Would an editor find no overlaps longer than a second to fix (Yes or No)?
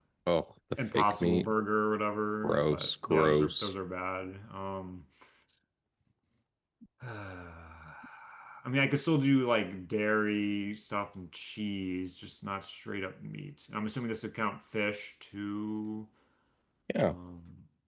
No